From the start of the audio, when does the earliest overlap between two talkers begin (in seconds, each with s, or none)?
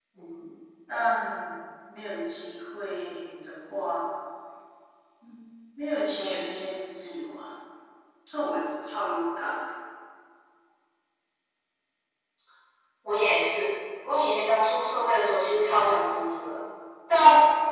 none